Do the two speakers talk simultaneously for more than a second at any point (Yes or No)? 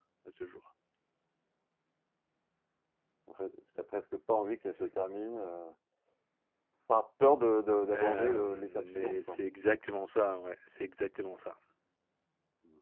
Yes